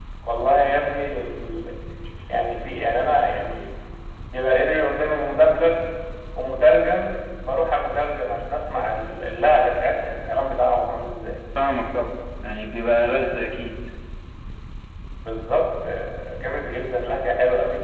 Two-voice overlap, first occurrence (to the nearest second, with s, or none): none